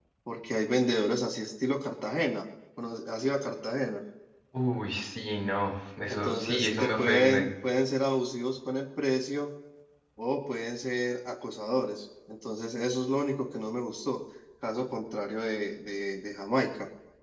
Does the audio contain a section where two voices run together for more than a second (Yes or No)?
Yes